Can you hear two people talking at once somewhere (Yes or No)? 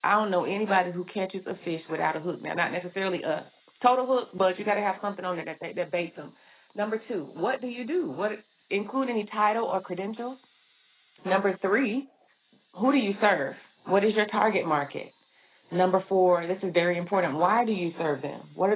No